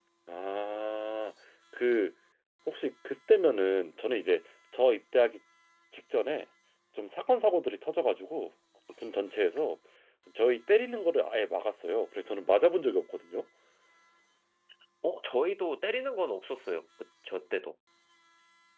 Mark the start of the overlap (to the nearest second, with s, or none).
none